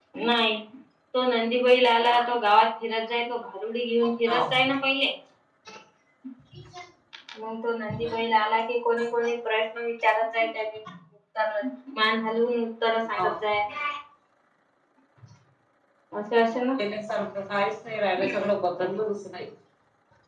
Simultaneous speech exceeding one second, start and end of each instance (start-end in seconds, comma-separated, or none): none